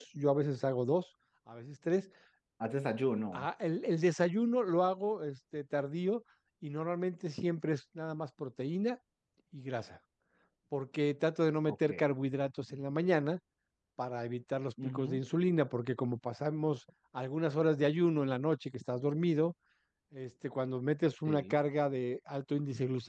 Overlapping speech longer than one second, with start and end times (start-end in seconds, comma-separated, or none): none